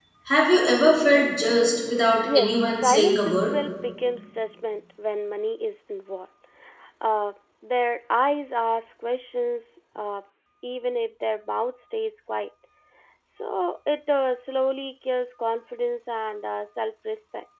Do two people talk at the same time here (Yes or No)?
Yes